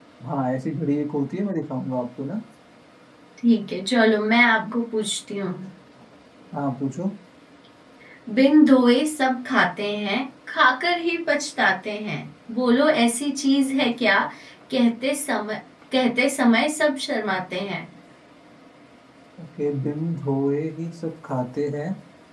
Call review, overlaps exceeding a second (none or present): none